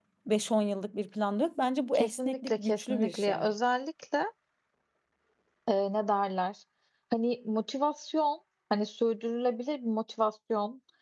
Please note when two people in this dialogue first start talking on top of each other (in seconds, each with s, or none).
1.9 s